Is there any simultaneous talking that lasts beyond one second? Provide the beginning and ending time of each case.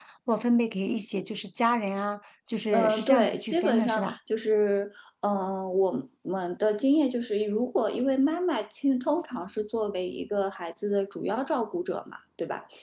2.7-4.2

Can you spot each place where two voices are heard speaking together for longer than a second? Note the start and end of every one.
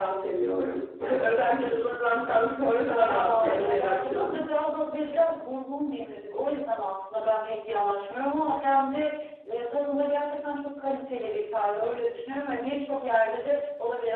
3.1-4.4

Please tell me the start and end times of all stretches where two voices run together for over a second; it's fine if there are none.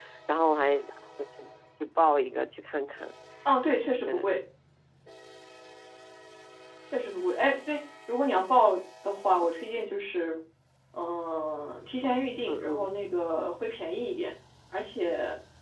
none

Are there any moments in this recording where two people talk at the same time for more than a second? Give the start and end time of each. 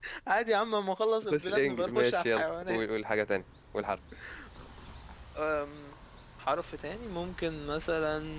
1.3-2.8

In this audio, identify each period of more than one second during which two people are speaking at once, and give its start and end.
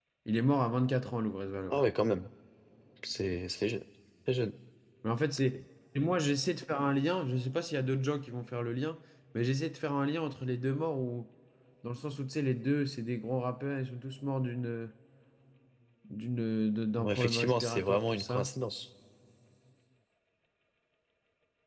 17.0-18.5

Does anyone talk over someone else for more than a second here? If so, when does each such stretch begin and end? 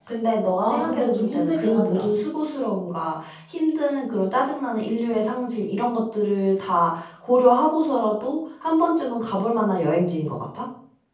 0.6-2.1

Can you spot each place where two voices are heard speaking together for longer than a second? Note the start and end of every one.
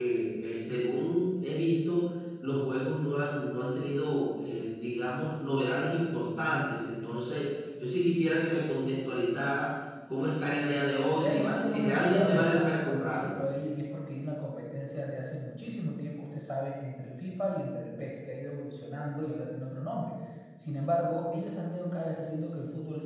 11.1-13.4

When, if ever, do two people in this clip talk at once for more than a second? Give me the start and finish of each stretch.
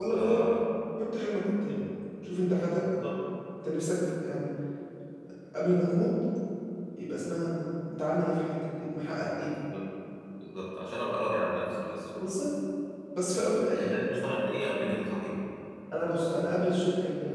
none

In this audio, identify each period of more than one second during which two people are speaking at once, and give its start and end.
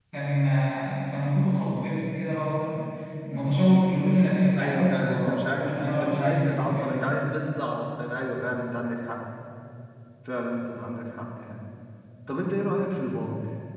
4.6-7.1

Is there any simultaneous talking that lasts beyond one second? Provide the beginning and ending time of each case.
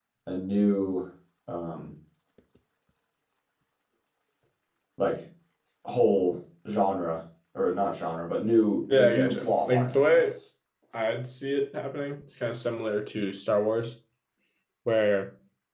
8.9-10.2

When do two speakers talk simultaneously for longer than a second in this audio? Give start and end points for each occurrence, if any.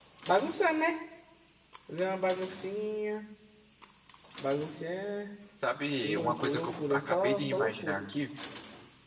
6.0-8.0

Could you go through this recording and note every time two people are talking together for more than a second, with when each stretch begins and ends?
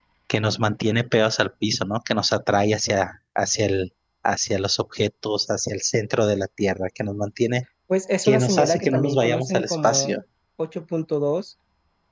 8.2-10.1

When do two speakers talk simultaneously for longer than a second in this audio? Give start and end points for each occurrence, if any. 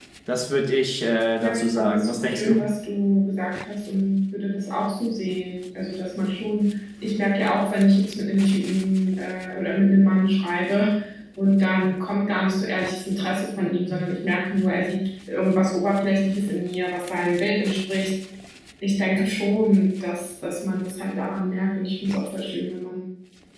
1.4-2.6

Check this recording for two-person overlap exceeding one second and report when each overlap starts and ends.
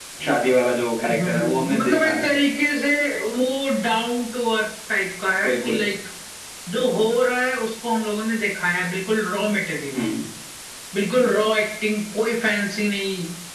1.1-2.3

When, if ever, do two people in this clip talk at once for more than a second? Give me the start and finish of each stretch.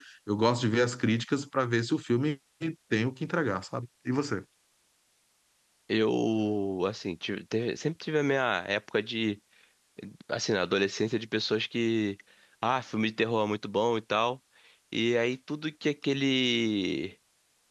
none

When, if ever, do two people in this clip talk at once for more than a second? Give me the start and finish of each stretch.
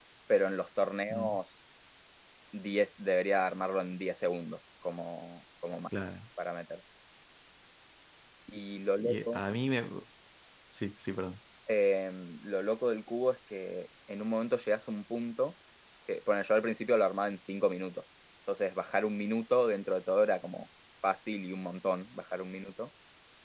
none

